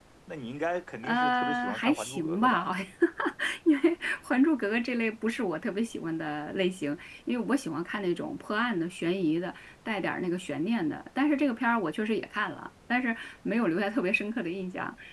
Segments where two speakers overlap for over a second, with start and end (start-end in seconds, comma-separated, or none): 1.0-2.7